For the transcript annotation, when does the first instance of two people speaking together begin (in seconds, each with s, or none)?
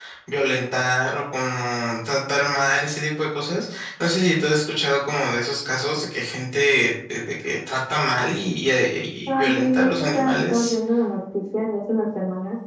9.3 s